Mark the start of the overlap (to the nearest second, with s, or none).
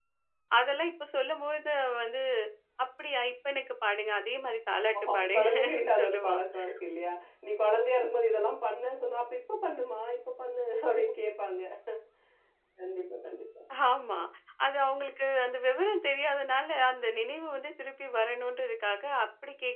5 s